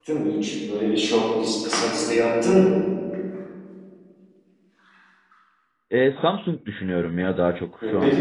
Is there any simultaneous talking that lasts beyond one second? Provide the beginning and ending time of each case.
none

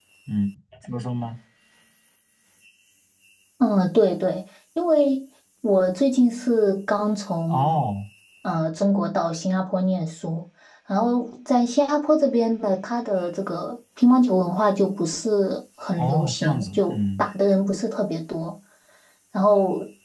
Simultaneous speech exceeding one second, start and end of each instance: 16.0-17.3

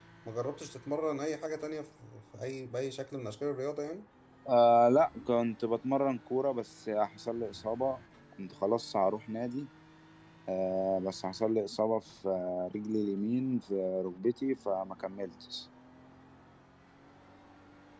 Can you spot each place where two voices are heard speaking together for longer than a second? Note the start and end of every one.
none

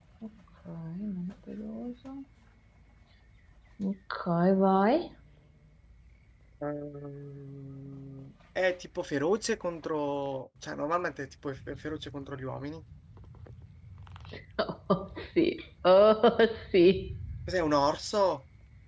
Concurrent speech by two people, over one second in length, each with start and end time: none

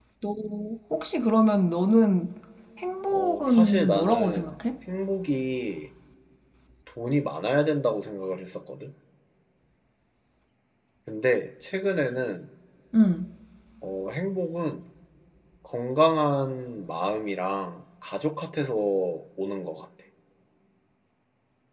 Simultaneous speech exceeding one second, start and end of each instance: 3.1-4.5

